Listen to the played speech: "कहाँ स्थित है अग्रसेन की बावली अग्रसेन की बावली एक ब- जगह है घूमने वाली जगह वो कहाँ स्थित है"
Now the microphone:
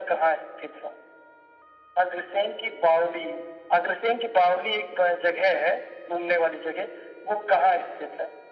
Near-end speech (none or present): none